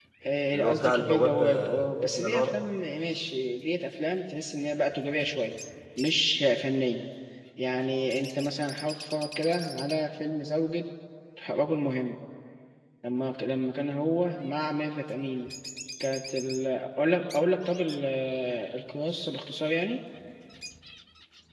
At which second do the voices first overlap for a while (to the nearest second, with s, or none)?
1 s